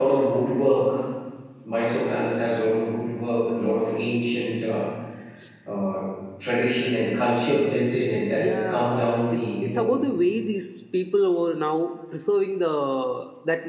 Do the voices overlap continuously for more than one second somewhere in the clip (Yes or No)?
Yes